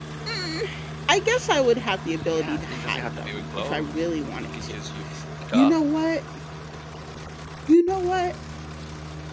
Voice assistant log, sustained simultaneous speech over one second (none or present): present